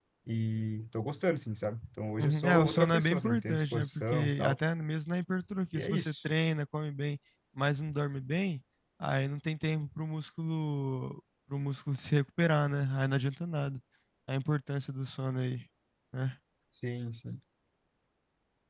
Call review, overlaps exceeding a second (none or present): present